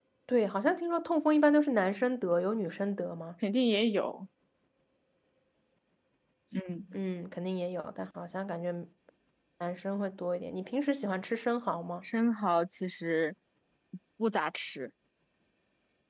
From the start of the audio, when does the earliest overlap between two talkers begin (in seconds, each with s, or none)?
none